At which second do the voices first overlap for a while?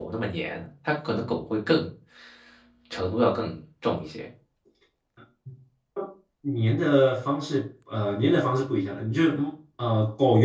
none

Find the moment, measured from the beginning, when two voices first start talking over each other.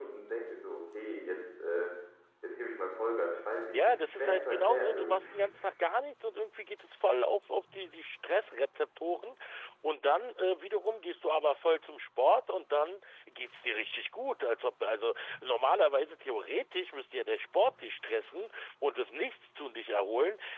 3.7 s

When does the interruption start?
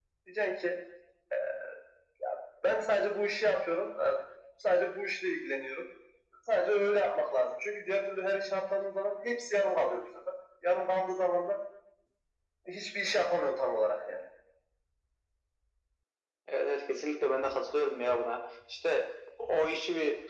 none

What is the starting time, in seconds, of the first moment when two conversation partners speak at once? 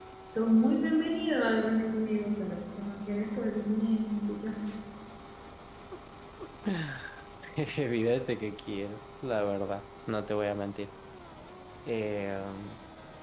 none

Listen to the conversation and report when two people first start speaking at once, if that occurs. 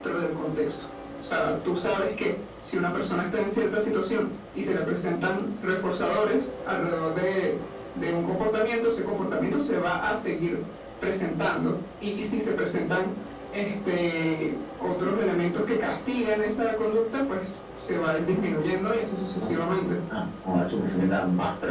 none

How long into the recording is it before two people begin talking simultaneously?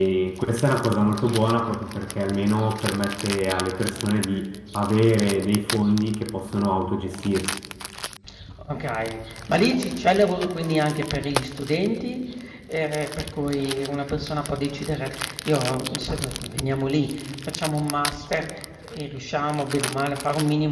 none

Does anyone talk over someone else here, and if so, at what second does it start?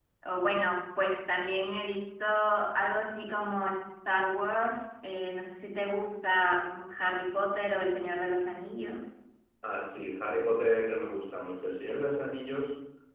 none

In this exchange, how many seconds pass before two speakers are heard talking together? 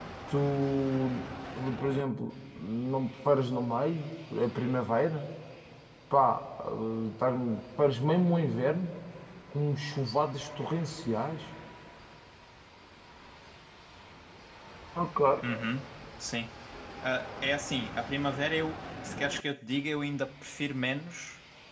none

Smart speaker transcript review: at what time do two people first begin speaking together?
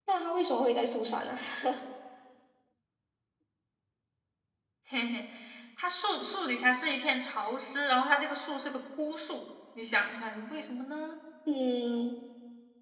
none

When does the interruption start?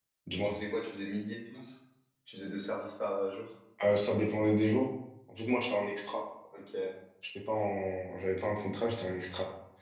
none

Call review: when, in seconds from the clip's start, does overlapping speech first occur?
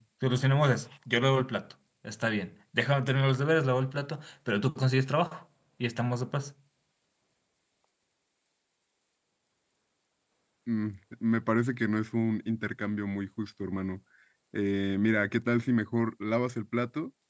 none

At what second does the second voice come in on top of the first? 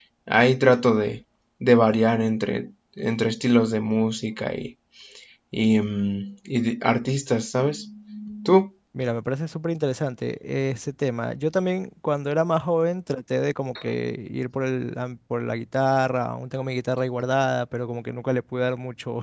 none

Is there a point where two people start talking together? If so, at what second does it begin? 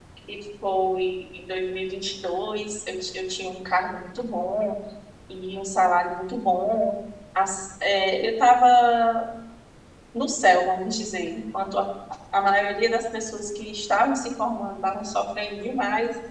none

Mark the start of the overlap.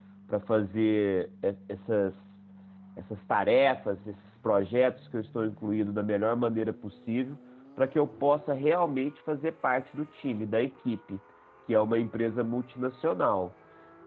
none

